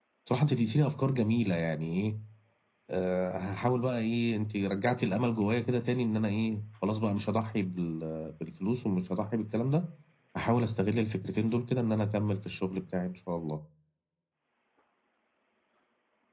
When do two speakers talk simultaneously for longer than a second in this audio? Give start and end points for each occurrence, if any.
none

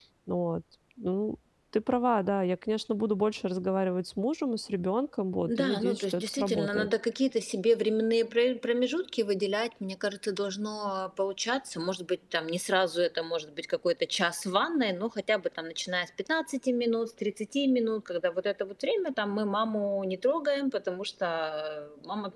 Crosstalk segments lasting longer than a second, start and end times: 5.4-6.9

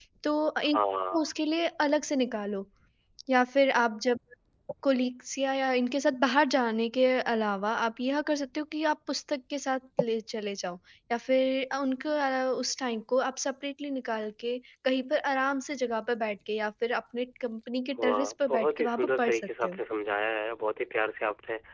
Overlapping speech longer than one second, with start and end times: 18.0-19.8

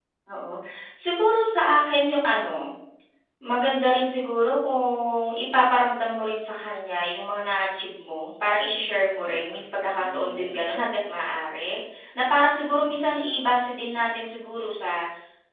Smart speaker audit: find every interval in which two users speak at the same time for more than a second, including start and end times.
9.3-10.8

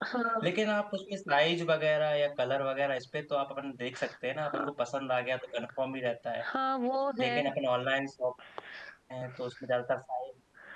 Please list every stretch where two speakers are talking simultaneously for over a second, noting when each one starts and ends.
none

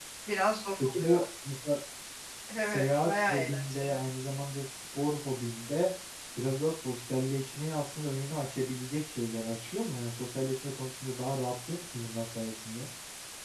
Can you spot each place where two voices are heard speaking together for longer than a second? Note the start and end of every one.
2.6-4.0

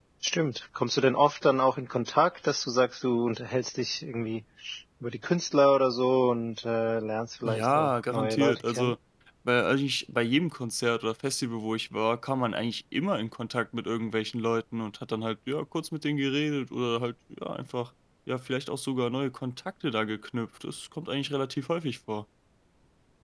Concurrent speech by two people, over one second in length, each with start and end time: 7.5-8.9

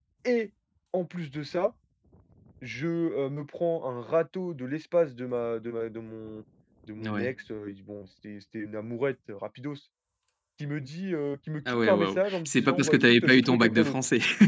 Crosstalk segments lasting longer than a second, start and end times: 11.7-14.0

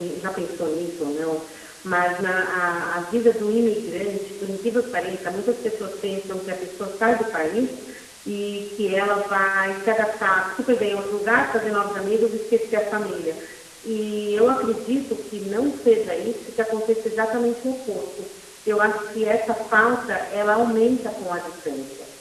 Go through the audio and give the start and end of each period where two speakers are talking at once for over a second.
none

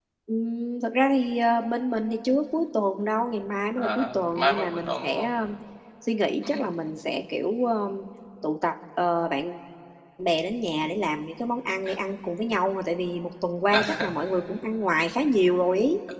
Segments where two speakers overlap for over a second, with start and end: 3.8-5.3

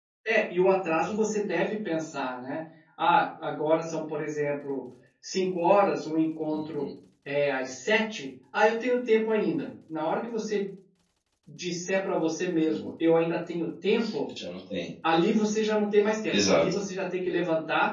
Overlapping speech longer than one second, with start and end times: none

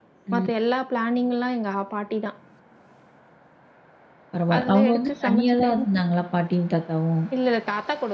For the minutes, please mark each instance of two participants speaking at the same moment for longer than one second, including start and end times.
4.6-5.8

